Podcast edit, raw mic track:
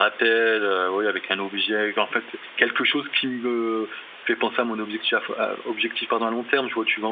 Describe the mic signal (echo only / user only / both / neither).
echo only